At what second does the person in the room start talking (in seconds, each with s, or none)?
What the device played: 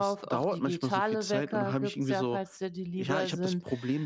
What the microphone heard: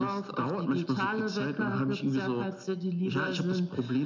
none